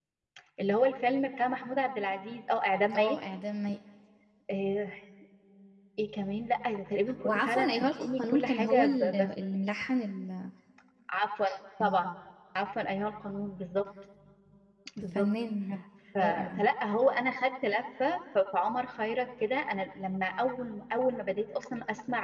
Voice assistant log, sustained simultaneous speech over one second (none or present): present